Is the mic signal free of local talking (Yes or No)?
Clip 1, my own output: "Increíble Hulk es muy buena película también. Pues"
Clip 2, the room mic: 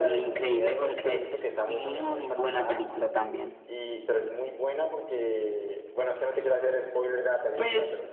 No